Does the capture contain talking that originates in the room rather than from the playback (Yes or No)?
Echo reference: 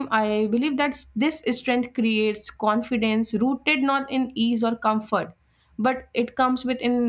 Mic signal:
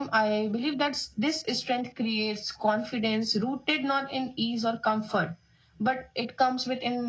No